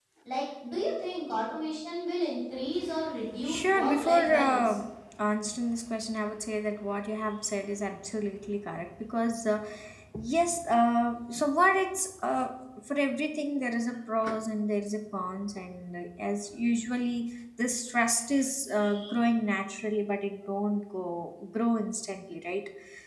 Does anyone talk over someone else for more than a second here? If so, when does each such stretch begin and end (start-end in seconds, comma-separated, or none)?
3.4-4.8